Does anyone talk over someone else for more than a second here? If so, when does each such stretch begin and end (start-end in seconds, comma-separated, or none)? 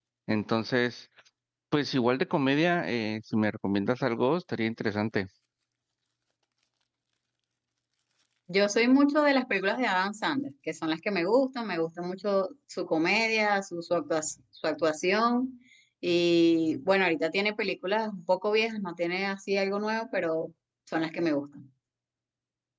none